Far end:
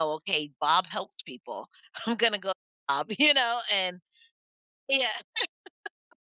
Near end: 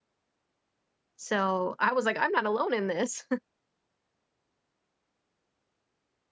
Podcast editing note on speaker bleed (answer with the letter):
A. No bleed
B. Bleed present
A